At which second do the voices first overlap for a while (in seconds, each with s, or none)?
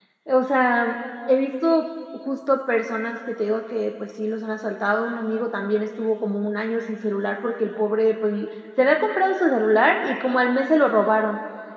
none